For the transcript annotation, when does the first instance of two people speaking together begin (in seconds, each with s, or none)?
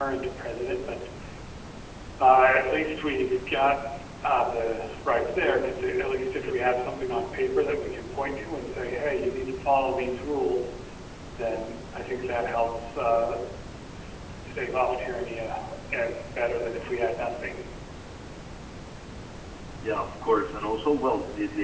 none